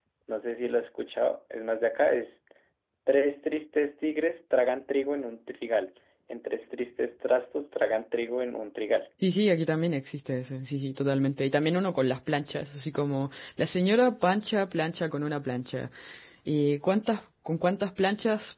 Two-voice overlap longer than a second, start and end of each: none

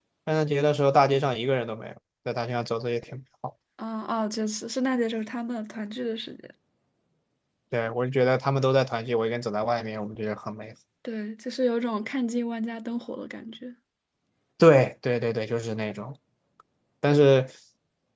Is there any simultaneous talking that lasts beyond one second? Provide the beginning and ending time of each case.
none

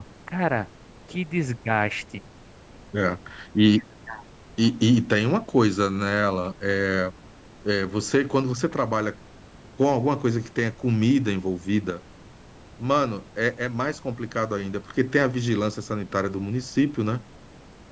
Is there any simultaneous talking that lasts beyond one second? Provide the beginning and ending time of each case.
none

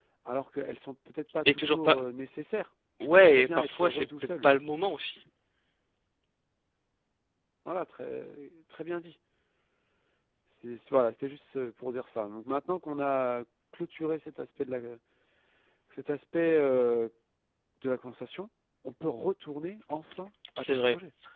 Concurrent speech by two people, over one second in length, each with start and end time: 3.0-4.5

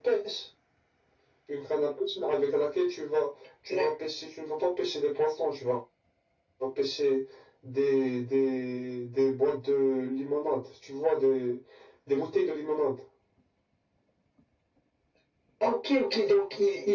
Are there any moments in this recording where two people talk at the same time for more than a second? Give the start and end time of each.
none

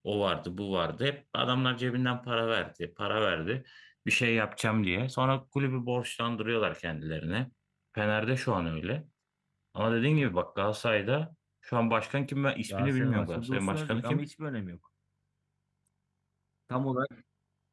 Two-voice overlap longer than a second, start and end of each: 12.7-14.3

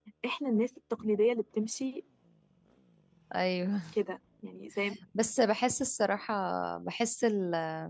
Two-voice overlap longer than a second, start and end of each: none

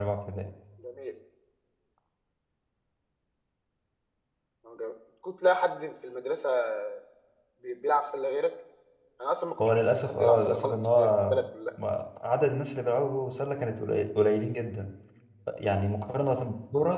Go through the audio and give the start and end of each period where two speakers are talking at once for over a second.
9.6-11.4

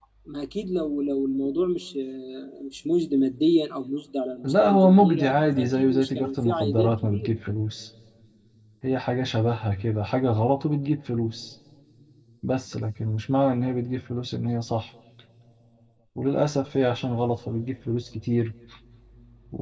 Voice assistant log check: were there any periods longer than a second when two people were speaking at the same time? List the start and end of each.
4.4-7.3

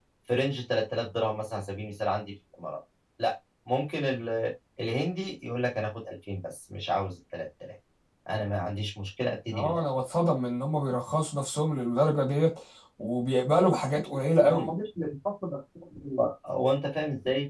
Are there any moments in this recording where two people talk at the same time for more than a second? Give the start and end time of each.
none

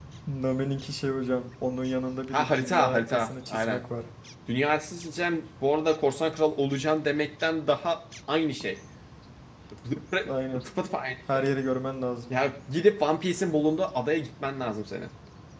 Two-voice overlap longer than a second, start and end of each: 2.3-3.8

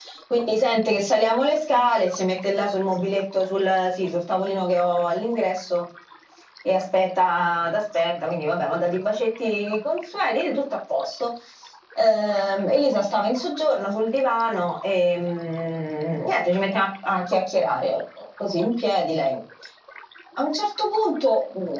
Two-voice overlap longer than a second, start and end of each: none

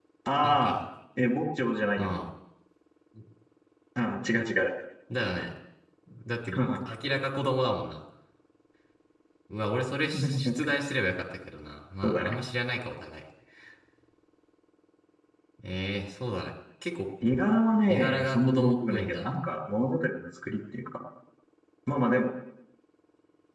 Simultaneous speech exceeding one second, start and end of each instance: 17.9-19.3

